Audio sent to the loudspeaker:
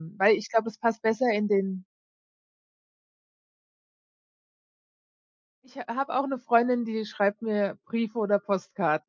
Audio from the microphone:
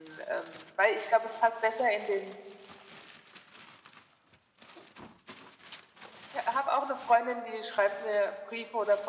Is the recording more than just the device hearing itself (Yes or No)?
No